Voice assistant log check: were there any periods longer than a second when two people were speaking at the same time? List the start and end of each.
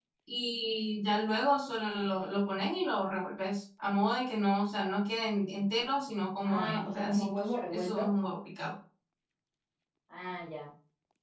6.4-8.1

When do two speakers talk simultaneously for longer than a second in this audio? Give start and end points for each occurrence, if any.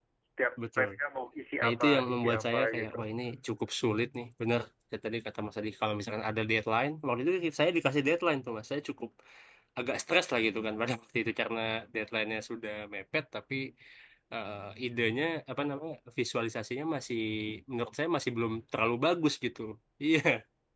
1.6-3.0

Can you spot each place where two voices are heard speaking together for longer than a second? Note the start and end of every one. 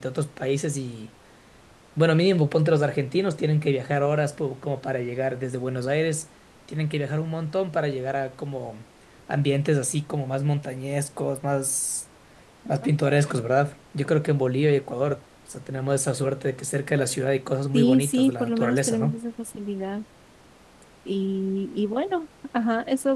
17.7-19.2

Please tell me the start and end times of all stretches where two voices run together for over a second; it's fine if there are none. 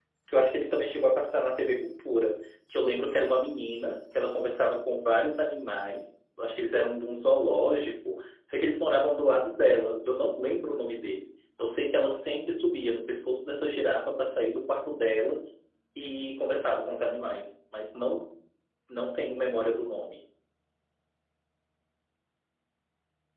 none

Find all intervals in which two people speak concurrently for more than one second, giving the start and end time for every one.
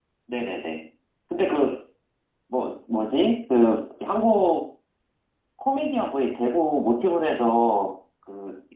none

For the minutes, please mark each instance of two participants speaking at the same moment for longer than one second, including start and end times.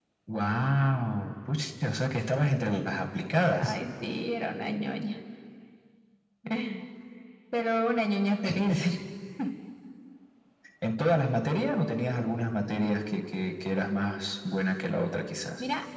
none

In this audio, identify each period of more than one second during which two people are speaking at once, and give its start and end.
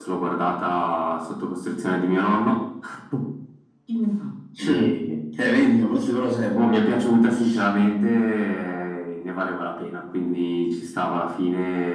none

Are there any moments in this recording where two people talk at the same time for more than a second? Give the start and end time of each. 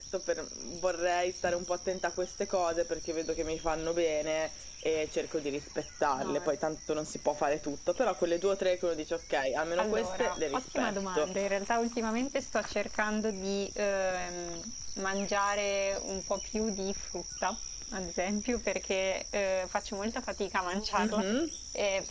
9.8-11.3

